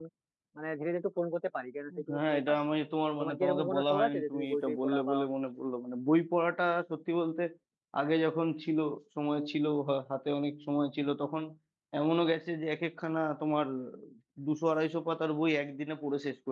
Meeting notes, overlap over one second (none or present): present